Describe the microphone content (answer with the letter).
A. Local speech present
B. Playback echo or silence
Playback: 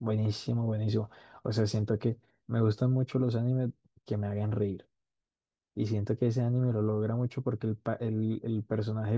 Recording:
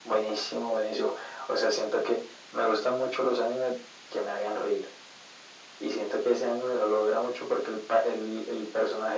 B